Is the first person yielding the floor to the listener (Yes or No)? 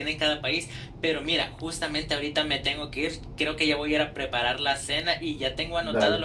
No